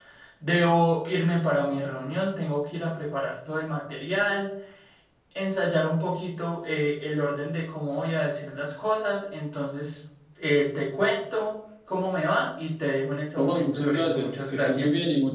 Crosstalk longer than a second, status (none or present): present